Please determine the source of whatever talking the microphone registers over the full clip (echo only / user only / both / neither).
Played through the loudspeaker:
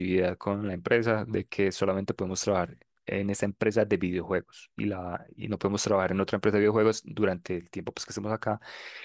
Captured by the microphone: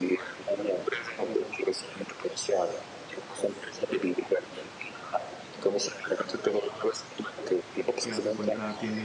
both